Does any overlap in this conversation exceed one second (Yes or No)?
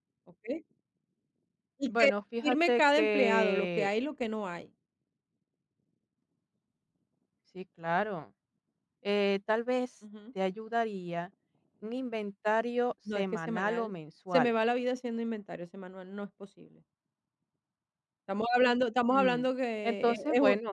Yes